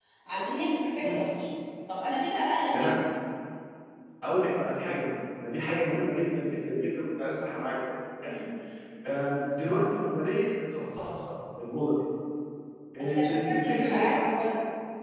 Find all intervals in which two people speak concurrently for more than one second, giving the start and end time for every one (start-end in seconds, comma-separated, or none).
13.0-14.2